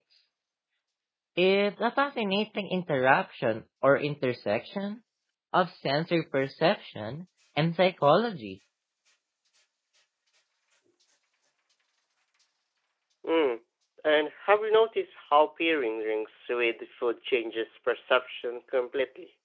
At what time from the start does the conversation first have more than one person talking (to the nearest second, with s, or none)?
none